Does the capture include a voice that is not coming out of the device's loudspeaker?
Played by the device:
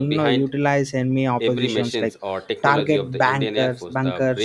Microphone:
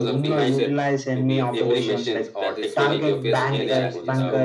Yes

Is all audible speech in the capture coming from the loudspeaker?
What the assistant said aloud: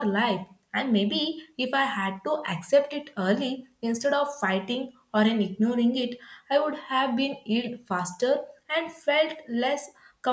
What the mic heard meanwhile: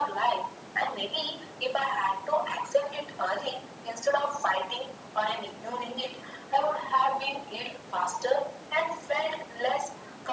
Yes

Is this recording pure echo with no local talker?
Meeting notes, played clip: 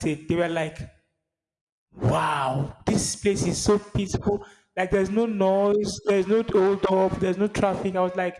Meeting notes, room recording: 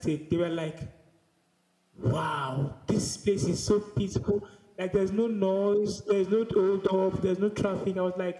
Yes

